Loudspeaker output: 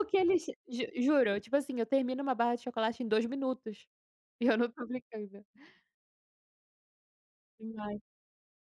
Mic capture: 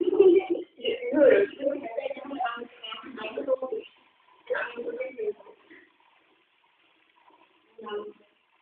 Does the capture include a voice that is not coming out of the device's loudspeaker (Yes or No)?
No